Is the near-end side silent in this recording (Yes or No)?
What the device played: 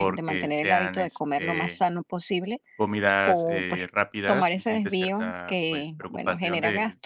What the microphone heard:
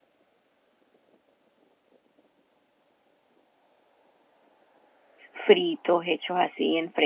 No